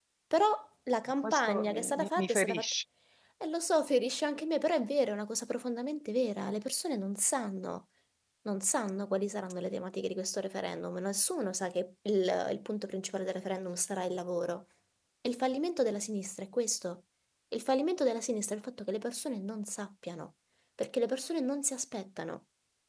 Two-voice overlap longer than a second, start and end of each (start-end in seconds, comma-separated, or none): 1.2-2.6